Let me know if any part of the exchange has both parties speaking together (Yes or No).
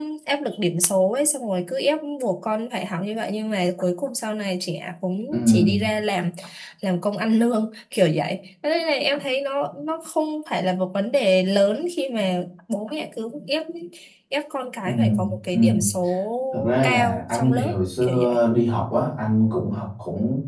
Yes